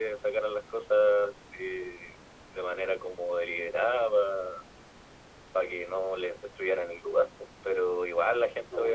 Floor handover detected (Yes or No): No